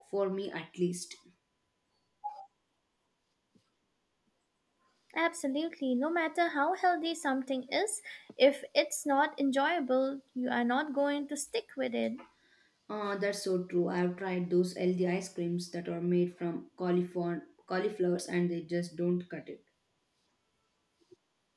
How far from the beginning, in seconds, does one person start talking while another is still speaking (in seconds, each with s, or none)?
none